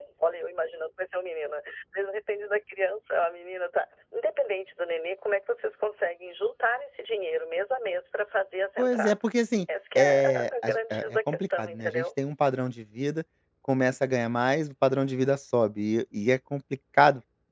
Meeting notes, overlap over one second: present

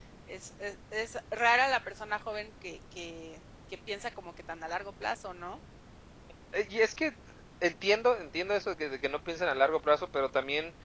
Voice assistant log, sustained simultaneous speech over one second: none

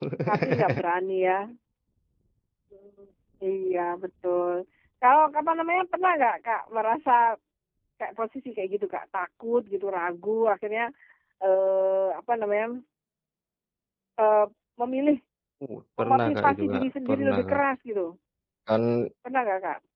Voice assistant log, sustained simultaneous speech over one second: present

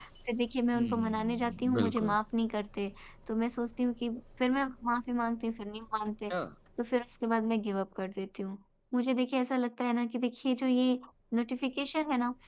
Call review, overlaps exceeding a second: present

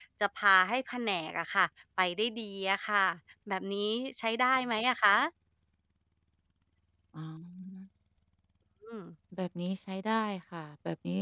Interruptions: none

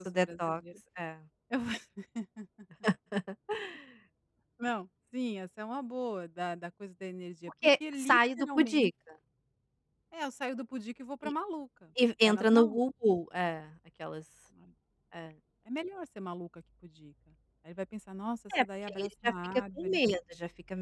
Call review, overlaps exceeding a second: present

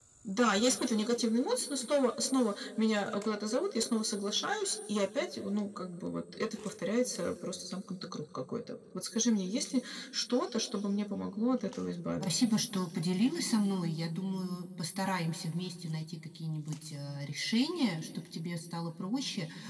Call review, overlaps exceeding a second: none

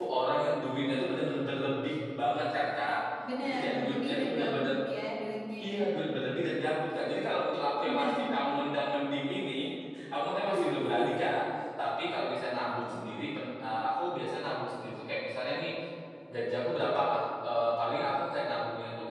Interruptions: present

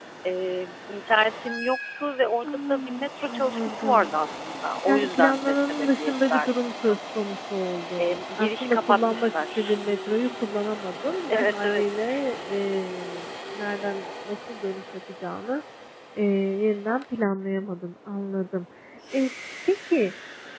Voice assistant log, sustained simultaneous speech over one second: present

